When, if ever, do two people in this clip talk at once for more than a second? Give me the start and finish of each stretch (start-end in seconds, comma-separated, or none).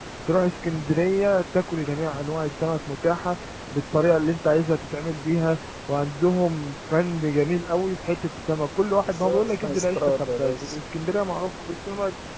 9.1-10.8